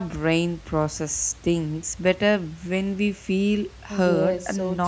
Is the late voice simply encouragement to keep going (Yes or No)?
No